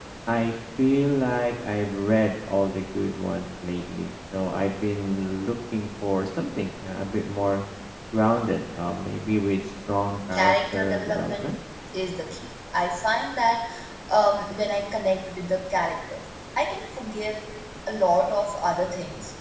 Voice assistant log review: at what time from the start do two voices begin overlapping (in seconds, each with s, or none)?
10.3 s